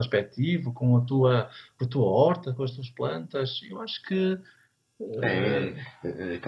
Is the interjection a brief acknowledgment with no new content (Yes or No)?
No